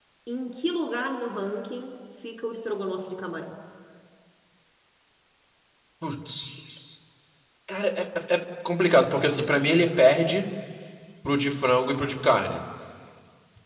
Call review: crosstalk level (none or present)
none